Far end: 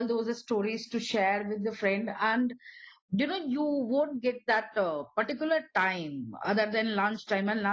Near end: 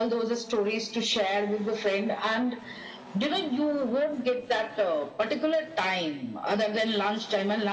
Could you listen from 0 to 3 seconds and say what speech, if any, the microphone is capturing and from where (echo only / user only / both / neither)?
echo only